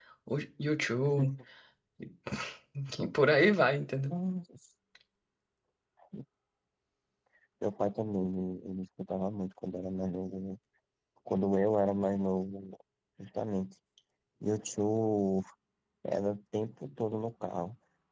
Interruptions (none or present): none